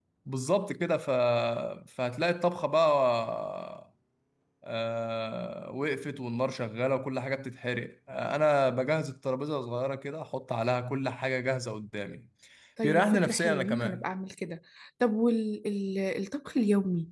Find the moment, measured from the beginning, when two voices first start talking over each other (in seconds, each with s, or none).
12.8 s